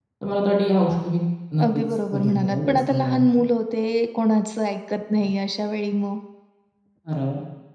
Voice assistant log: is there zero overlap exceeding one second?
No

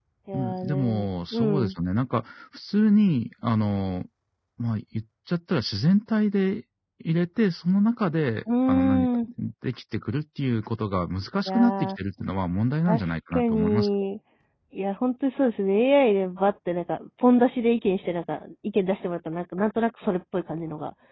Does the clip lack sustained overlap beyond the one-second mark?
No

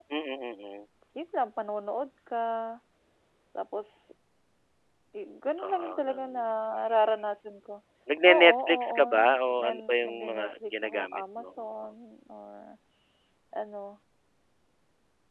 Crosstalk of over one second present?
Yes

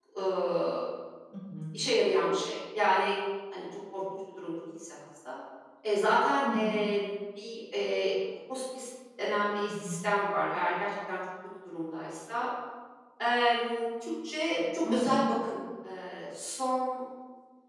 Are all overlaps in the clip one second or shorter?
Yes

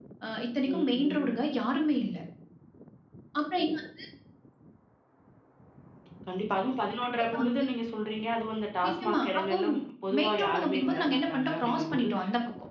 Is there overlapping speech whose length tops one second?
Yes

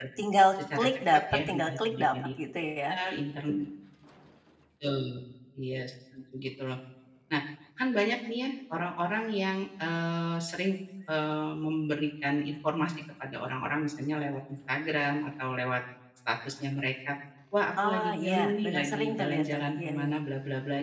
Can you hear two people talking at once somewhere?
Yes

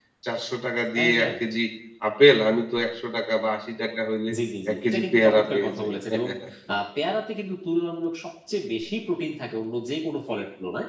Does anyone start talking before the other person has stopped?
Yes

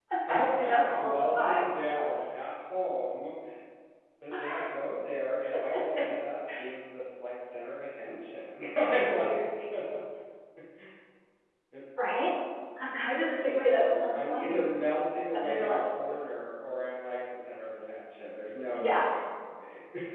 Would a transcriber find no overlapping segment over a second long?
No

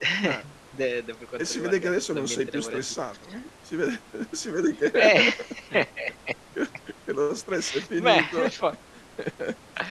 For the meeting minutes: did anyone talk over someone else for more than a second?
Yes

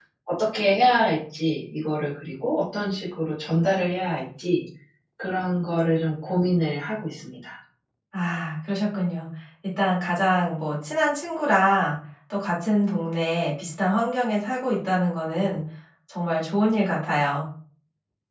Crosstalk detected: No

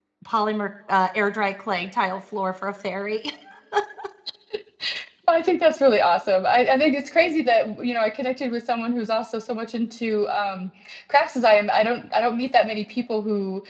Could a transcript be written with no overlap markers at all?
Yes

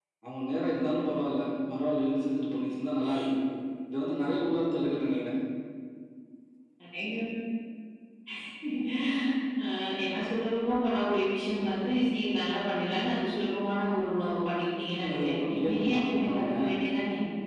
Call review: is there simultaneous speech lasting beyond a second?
Yes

